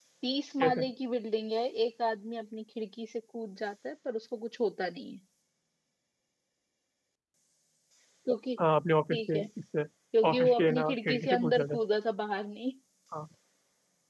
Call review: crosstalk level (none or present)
present